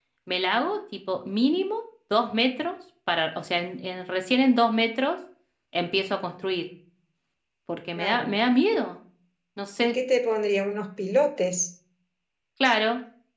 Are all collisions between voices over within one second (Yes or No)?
Yes